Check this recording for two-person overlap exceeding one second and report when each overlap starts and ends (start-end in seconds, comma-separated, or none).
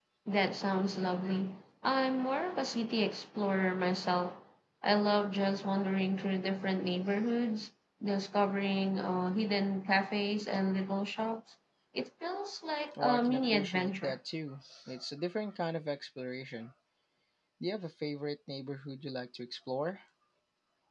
12.9-14.2